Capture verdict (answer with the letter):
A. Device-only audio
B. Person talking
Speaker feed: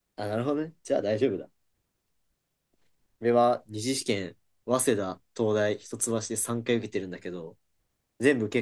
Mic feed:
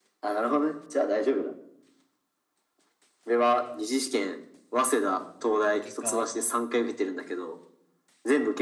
B